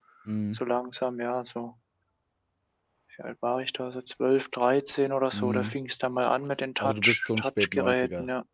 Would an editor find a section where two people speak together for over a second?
Yes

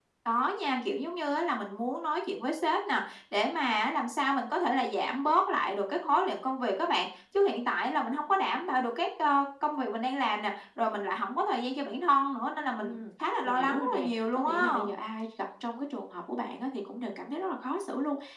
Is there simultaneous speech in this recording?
Yes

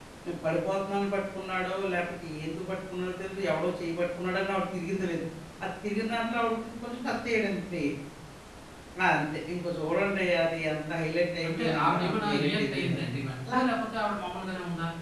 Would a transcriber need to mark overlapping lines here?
Yes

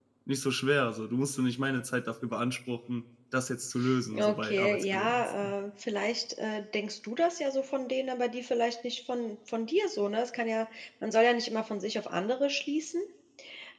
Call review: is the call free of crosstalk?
No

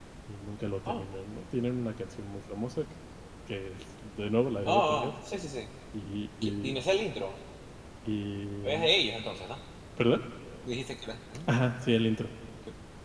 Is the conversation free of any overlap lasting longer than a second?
Yes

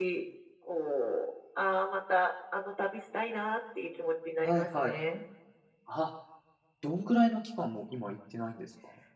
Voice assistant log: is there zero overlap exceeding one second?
Yes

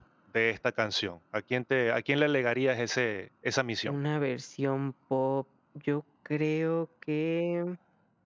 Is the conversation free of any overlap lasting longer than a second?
Yes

